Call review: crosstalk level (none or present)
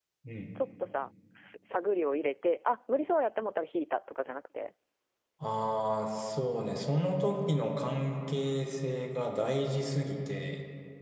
none